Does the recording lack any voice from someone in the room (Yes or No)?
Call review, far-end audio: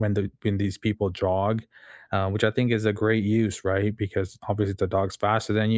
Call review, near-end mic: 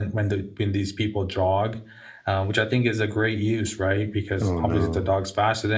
No